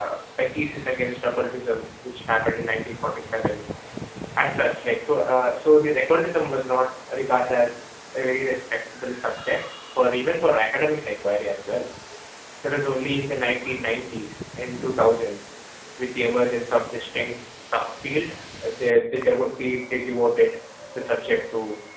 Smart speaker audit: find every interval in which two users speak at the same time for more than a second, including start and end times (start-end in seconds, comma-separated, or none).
none